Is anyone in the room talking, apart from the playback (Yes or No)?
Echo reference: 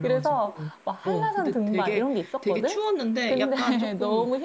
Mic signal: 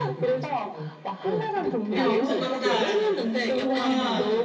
Yes